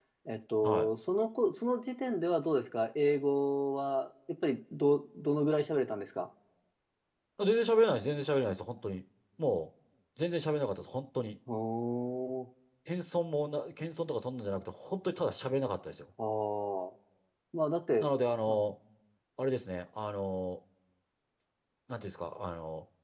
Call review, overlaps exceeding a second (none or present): none